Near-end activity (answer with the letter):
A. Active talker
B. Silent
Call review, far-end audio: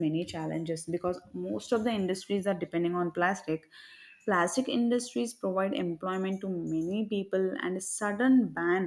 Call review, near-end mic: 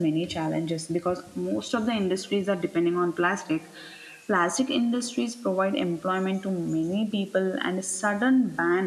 B